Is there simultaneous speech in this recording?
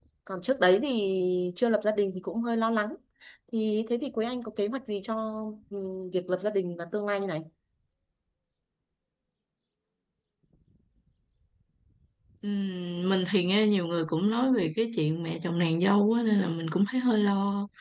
No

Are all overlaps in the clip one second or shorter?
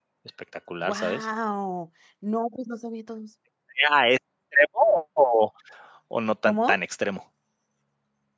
Yes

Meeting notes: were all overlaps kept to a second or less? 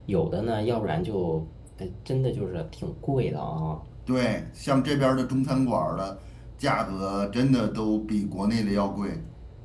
Yes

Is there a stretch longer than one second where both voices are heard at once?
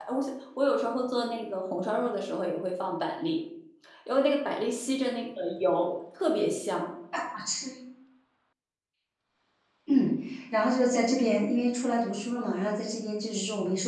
No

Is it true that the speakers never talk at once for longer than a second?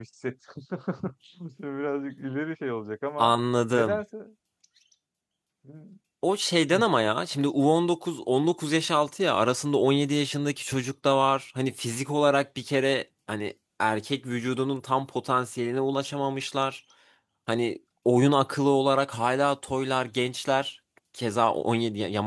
Yes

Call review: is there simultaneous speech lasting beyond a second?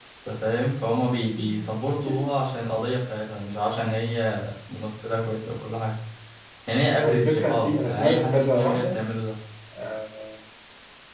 Yes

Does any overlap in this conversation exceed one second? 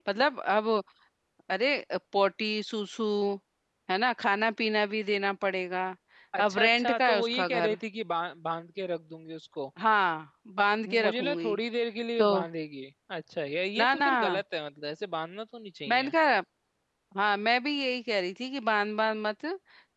Yes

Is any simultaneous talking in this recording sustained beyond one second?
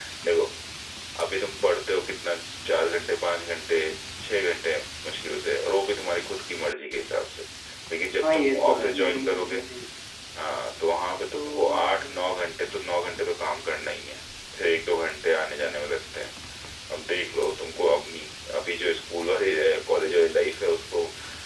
Yes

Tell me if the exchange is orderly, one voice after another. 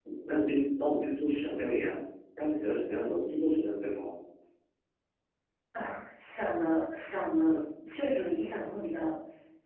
Yes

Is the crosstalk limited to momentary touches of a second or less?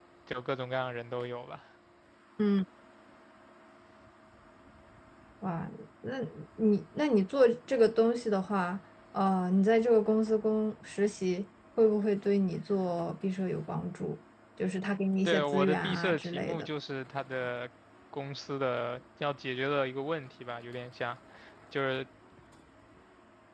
No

